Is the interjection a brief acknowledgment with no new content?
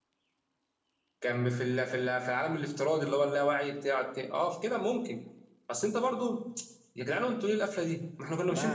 No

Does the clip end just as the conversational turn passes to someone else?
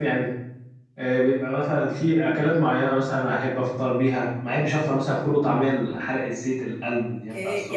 Yes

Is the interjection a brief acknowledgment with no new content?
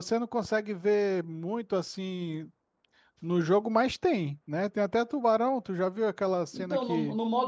No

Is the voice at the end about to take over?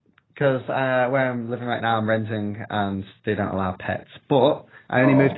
No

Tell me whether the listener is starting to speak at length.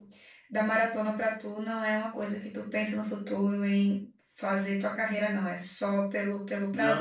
Yes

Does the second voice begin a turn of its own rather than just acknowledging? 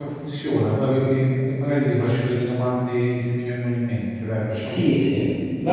Yes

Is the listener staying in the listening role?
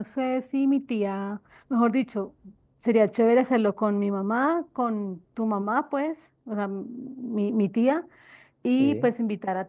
Yes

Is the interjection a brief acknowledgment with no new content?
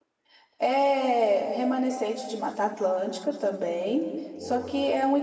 Yes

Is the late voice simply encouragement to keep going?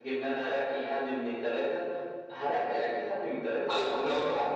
No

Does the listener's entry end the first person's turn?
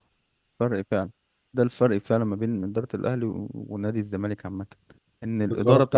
No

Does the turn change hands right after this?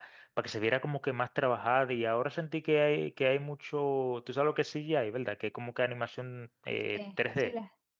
Yes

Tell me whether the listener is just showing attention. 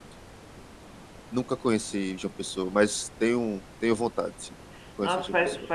No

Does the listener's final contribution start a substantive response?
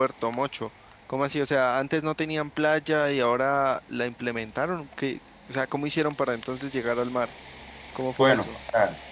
Yes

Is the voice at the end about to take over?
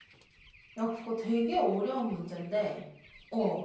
No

